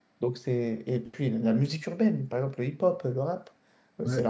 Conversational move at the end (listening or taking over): listening